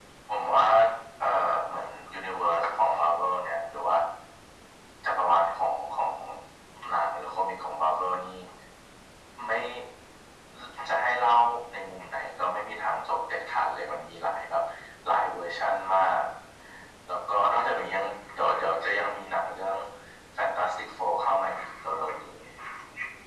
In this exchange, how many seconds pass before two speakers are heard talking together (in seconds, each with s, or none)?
none